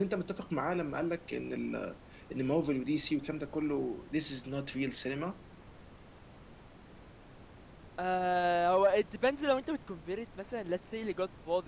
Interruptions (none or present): none